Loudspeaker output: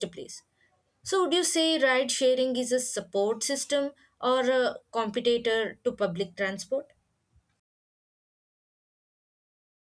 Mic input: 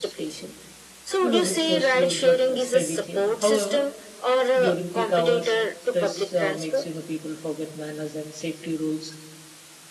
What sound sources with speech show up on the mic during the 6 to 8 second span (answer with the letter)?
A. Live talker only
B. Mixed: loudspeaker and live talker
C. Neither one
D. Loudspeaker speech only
B